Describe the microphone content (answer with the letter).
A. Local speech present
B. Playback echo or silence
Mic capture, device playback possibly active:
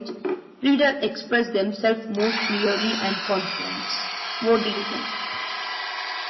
B